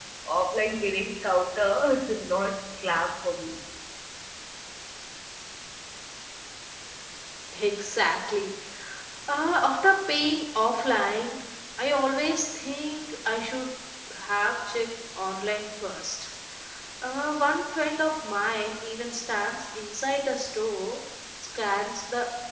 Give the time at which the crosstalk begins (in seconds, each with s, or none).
none